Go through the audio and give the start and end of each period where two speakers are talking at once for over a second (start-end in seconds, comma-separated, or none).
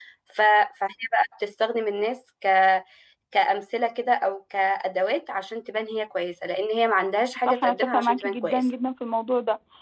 7.4-8.7